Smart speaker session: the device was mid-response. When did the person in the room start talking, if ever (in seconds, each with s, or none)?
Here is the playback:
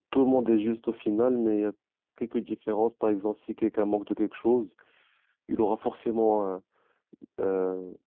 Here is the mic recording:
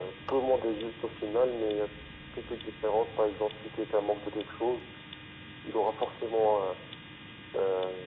none